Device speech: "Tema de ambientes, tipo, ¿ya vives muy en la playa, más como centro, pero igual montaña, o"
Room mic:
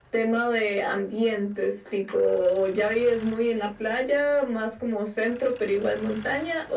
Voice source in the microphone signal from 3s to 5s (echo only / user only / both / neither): echo only